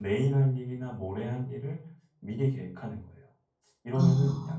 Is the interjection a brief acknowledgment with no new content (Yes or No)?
Yes